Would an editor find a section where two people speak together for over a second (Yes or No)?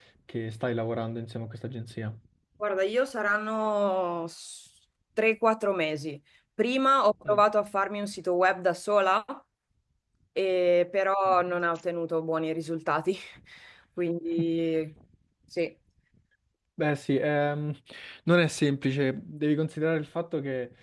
No